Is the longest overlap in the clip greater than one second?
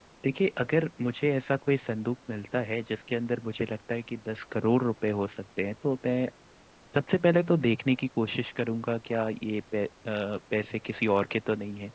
No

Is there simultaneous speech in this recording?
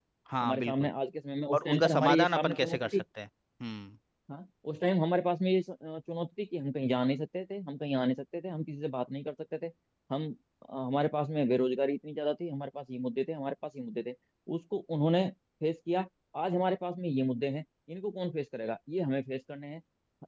Yes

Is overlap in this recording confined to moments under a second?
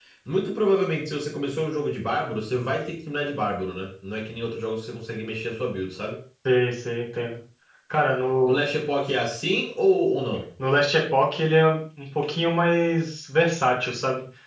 Yes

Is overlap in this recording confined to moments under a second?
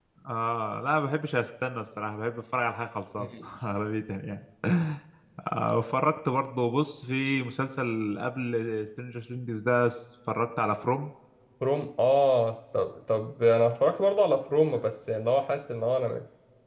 Yes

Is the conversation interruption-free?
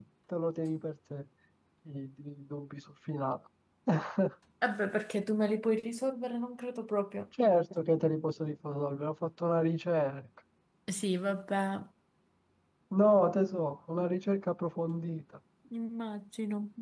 Yes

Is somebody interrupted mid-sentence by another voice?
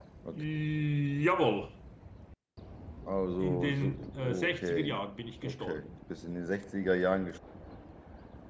Yes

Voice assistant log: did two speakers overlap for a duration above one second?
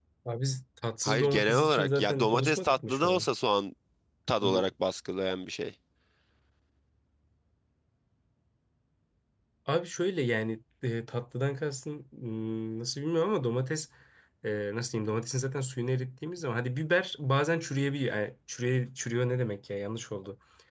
Yes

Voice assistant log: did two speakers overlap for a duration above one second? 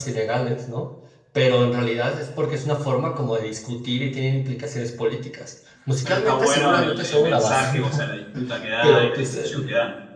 Yes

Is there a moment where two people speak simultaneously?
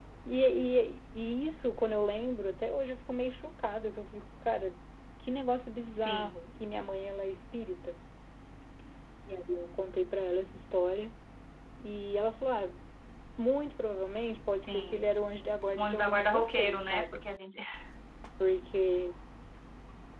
Yes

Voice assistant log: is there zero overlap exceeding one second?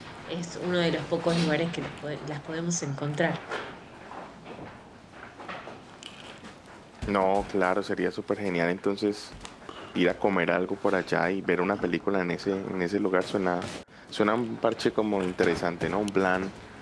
Yes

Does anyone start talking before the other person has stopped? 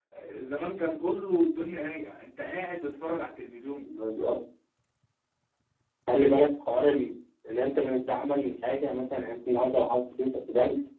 No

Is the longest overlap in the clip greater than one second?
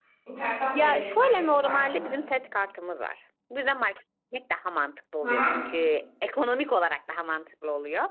Yes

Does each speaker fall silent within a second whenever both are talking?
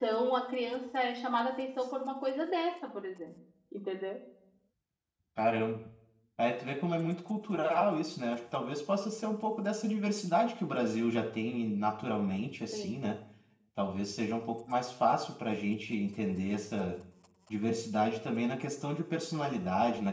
Yes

